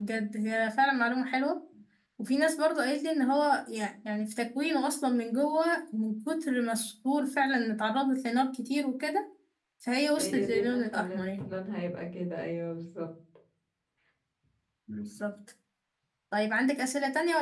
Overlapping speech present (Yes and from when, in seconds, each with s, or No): Yes, from 10.2 s